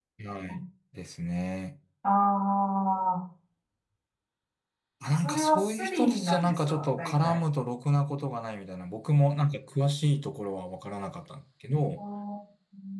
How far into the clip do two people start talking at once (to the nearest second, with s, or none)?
5 s